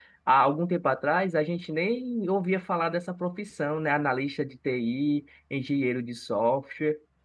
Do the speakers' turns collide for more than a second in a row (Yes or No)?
No